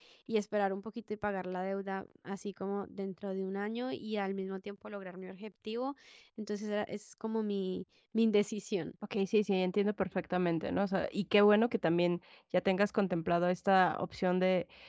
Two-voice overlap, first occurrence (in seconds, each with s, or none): none